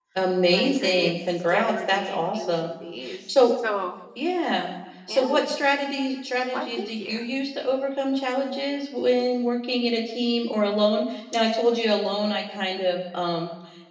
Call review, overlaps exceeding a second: present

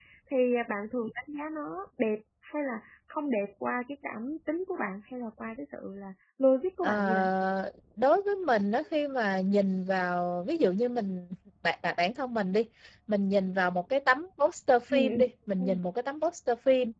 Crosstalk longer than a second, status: none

